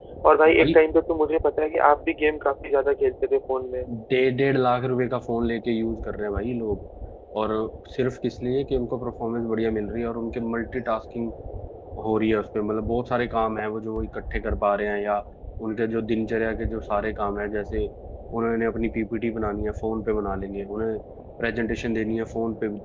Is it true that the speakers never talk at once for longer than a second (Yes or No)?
Yes